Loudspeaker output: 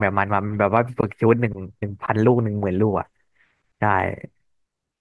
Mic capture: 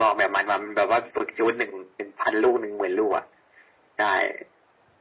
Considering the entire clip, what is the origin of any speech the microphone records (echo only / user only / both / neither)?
echo only